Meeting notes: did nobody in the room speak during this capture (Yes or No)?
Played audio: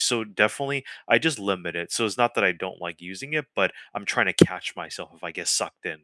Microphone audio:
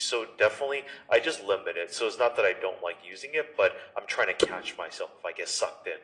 Yes